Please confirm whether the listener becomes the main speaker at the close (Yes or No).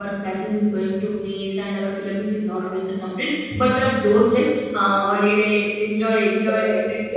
Yes